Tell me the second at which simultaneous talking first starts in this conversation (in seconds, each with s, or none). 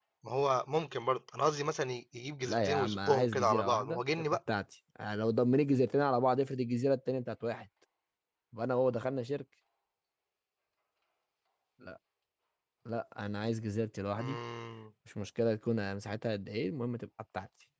2.4 s